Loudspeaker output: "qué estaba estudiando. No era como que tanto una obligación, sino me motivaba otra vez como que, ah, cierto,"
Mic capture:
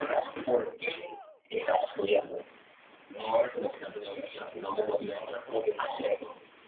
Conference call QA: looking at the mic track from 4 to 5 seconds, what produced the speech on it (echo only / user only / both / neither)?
echo only